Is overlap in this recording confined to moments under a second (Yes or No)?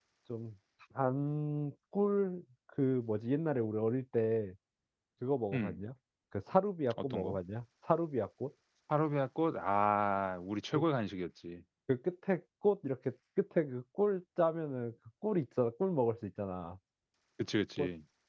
Yes